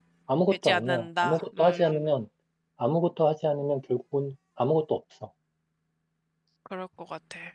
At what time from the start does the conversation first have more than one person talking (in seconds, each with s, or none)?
0.6 s